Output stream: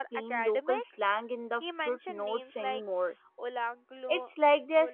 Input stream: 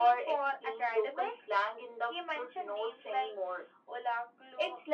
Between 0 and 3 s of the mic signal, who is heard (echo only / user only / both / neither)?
echo only